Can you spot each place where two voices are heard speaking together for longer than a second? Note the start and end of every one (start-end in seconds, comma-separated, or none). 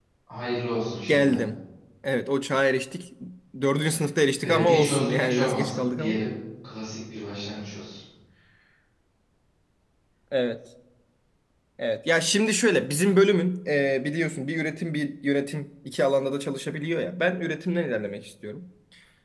4.4-6.2